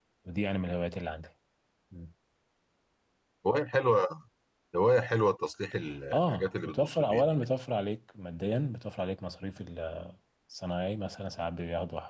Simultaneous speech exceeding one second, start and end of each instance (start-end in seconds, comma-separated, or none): 6.1-7.4